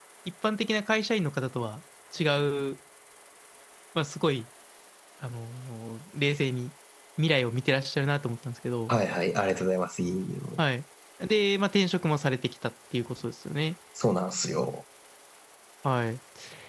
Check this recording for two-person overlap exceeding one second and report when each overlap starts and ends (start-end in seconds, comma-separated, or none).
none